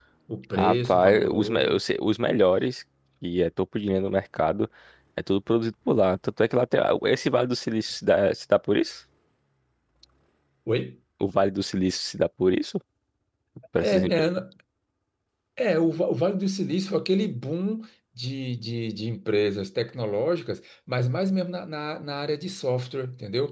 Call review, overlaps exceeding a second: present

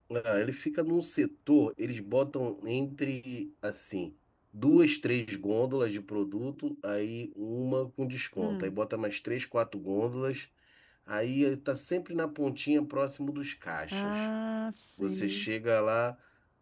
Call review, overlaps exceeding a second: none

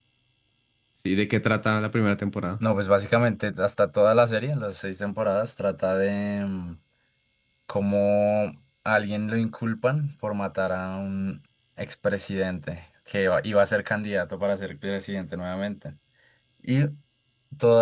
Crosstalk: none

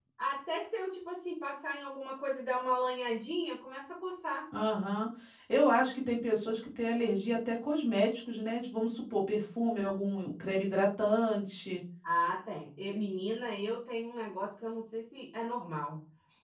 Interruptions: none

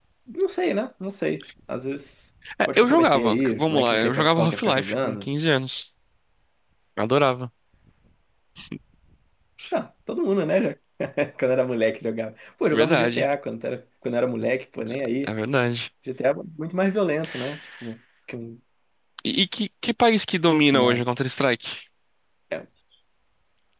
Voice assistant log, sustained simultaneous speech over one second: present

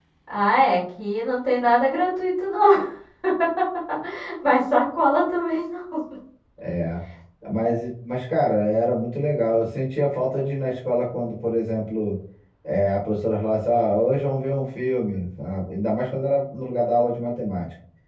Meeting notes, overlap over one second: none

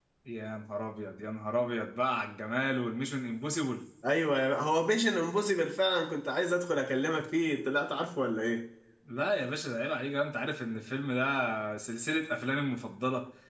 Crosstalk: none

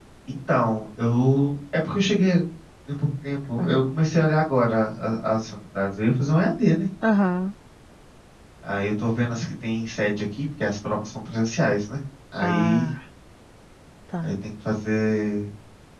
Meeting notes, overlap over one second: none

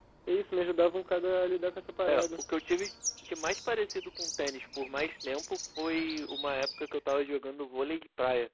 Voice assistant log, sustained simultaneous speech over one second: none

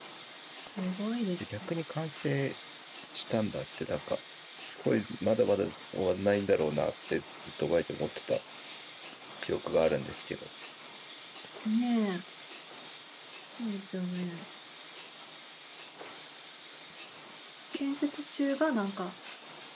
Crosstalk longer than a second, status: none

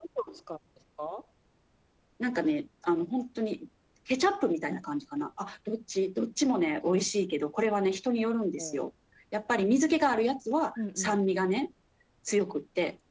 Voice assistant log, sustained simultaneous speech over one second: none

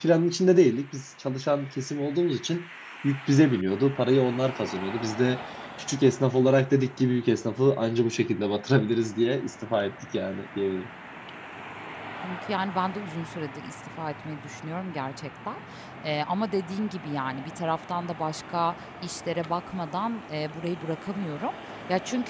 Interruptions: none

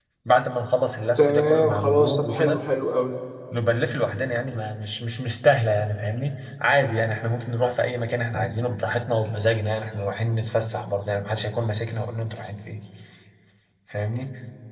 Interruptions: present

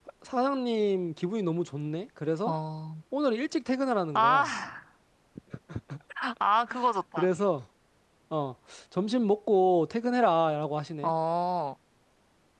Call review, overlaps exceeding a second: none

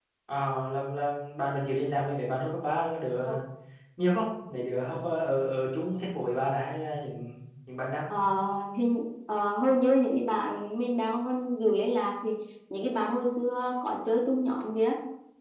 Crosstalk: none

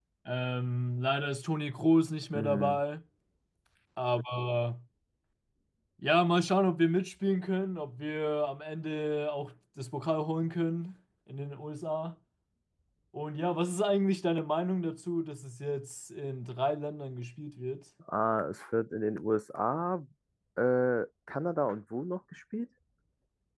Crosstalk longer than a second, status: none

